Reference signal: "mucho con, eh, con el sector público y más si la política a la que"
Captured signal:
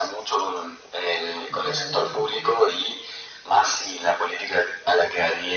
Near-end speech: present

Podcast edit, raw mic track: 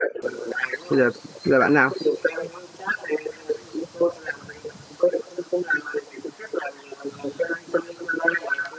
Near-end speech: present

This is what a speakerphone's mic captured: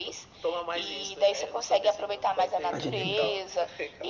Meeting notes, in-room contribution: present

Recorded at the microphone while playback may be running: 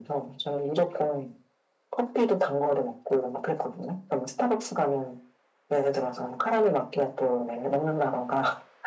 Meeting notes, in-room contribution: none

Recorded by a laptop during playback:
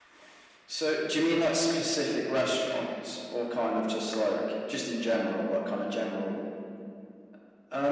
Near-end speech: none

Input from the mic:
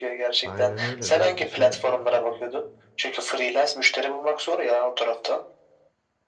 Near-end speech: present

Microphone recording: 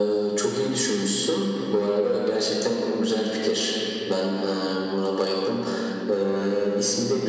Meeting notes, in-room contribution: none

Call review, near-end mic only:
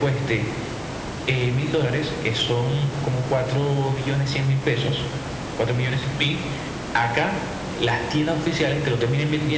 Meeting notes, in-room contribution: none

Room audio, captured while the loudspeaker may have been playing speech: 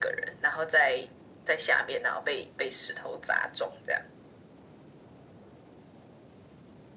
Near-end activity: none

